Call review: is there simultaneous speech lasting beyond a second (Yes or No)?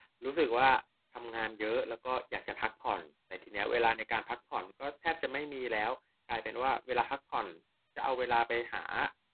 No